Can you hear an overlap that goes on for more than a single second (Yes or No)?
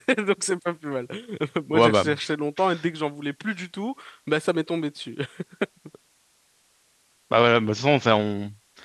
No